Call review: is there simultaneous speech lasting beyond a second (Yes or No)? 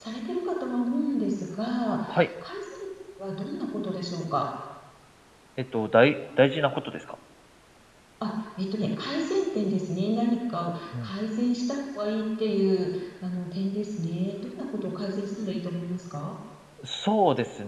No